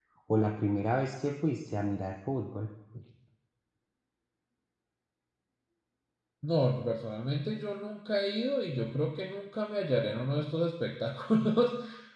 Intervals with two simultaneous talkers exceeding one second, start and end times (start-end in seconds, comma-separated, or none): none